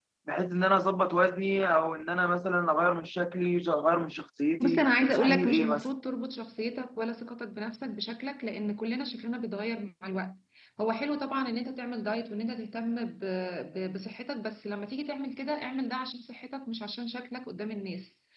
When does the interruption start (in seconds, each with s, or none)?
4.6 s